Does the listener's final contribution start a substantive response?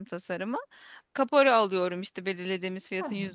No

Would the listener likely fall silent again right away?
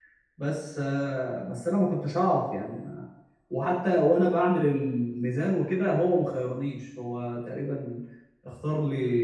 No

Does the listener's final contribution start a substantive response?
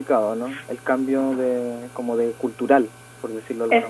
Yes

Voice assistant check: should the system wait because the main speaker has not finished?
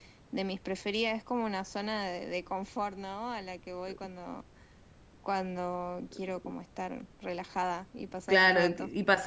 No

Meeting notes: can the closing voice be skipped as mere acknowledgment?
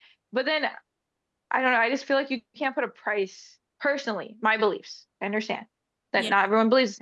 Yes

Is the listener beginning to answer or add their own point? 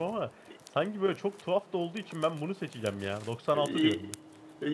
Yes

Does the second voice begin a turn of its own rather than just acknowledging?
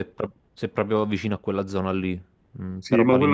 Yes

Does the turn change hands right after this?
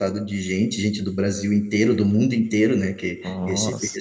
No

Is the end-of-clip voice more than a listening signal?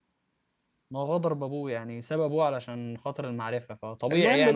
Yes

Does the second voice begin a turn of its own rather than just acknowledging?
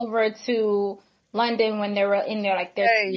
No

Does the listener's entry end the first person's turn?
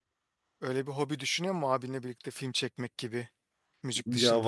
Yes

